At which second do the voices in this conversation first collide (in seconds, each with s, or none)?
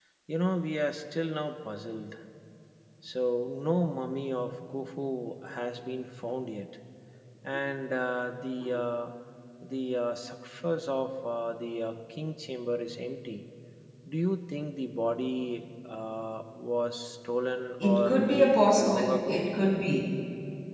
17.8 s